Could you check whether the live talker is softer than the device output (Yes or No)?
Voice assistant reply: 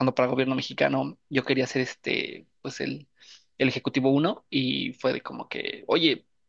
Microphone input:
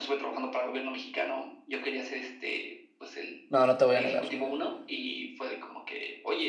No